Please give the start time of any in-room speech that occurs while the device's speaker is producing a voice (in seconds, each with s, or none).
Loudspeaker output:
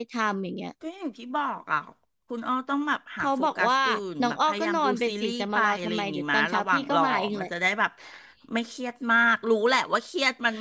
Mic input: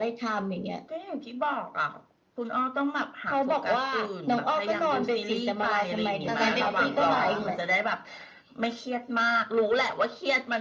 6.2 s